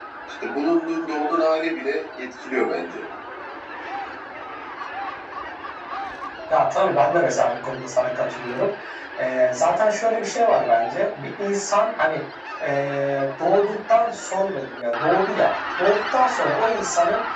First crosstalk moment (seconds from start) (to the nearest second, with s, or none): none